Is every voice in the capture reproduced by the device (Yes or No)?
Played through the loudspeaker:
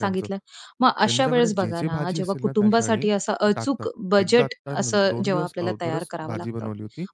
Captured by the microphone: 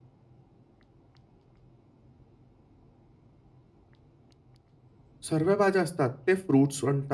No